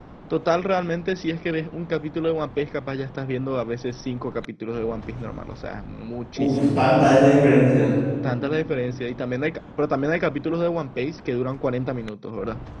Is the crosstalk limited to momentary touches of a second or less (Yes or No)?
Yes